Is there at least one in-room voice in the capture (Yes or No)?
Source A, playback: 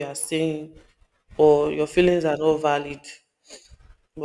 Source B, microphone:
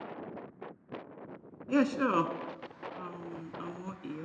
Yes